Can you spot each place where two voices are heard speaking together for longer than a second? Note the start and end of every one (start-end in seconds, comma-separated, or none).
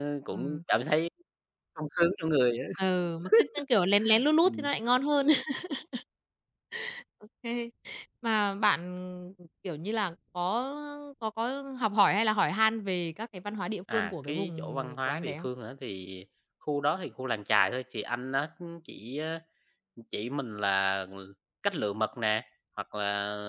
13.9-15.5